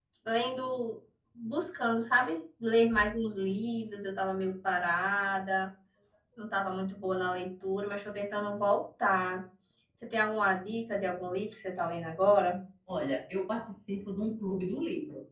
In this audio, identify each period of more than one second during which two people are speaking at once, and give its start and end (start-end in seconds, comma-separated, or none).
none